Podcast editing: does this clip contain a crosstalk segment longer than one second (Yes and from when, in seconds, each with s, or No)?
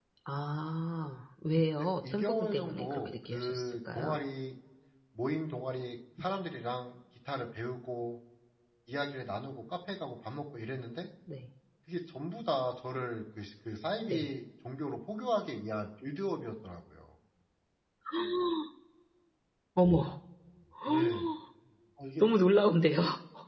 Yes, from 1.8 s